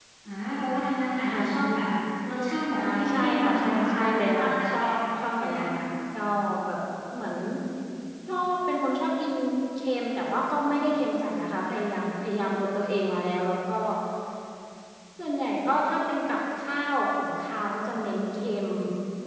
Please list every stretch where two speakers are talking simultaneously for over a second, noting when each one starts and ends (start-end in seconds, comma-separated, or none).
2.8-5.6